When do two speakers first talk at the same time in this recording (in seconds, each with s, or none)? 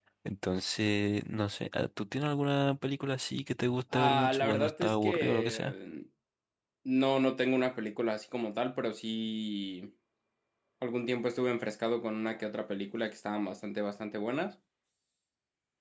3.9 s